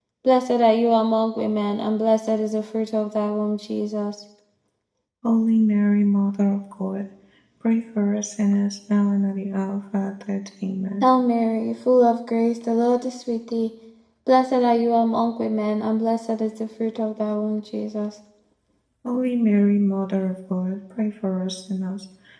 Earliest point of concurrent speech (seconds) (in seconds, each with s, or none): none